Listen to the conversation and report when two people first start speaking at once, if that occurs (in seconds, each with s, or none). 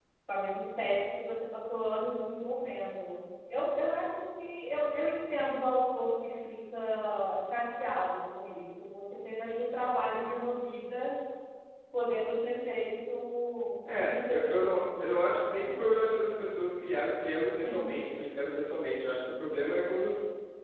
13.8 s